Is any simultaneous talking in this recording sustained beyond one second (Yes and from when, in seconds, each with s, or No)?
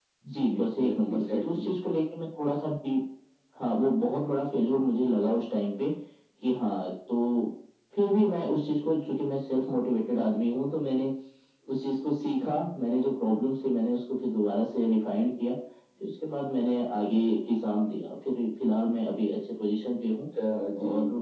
Yes, from 0.6 s